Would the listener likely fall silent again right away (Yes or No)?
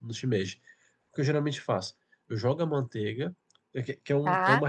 Yes